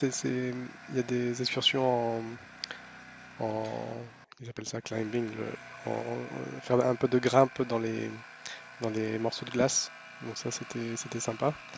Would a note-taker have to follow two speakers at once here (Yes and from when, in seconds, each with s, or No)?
No